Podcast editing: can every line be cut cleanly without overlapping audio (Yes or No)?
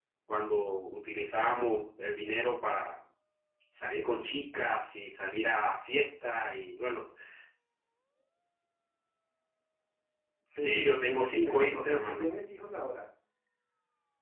No